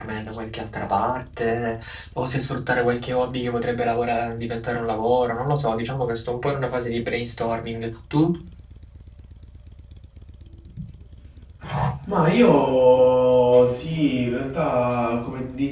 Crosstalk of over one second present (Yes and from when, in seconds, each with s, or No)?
No